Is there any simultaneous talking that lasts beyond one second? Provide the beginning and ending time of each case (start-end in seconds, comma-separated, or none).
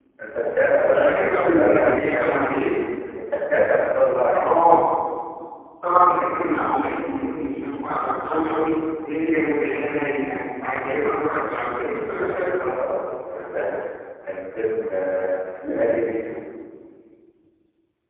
0.9-2.4